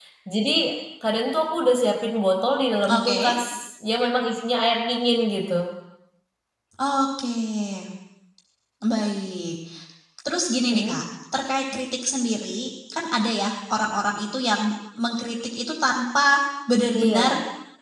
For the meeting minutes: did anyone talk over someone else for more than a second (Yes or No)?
No